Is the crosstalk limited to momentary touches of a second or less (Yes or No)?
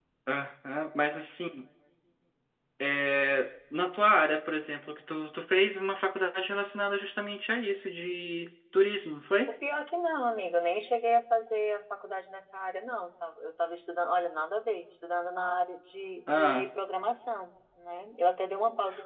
Yes